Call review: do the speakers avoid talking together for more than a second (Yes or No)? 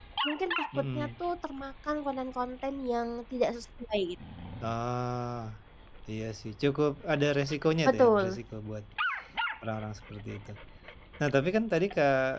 Yes